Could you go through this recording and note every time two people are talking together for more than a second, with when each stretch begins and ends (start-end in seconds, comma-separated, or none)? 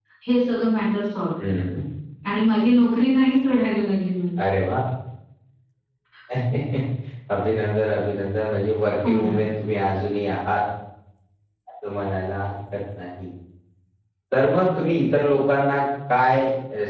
none